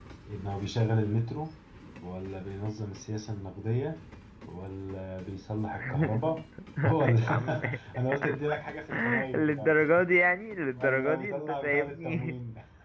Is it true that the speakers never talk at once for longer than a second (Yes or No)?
No